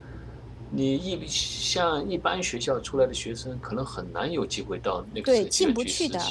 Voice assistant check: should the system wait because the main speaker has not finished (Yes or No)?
No